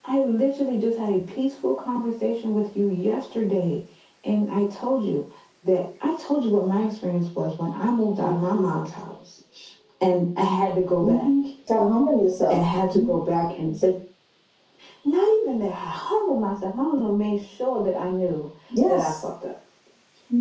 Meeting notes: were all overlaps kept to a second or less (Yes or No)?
Yes